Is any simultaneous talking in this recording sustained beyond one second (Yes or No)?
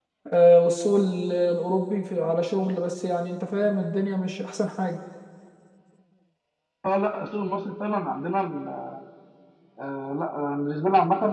No